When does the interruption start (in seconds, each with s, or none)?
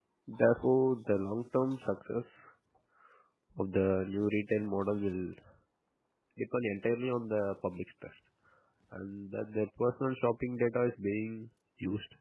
none